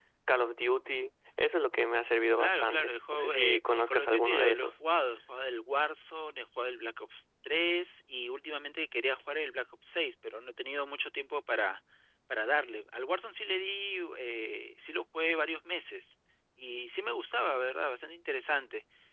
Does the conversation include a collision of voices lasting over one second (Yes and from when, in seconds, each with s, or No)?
Yes, from 2.4 s